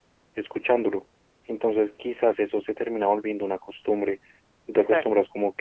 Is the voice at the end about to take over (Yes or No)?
No